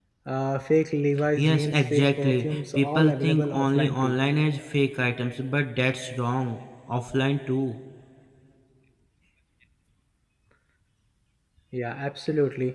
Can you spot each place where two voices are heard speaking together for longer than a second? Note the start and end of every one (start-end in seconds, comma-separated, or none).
1.4-4.2